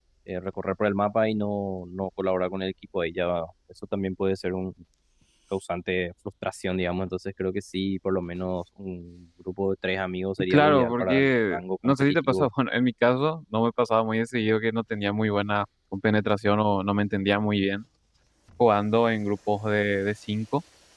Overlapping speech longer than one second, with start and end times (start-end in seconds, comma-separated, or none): 10.5-12.5